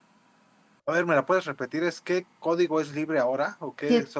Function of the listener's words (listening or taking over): taking over